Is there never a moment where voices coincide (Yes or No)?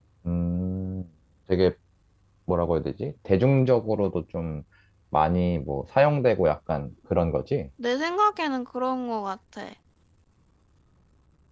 Yes